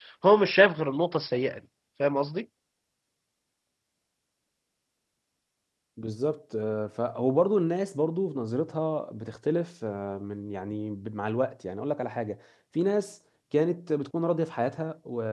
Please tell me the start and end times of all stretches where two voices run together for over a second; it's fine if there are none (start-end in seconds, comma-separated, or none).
none